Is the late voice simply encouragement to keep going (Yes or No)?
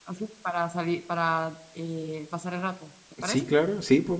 No